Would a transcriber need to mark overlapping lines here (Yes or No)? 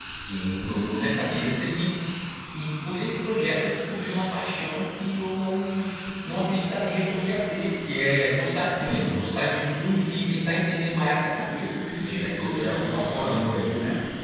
Yes